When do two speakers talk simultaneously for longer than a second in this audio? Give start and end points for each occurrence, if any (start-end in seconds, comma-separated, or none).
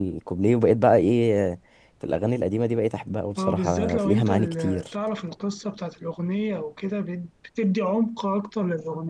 3.4-4.8